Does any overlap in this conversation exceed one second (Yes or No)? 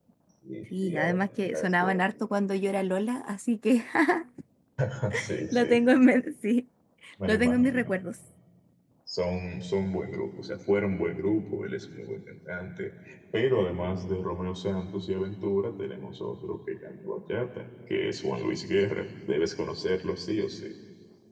Yes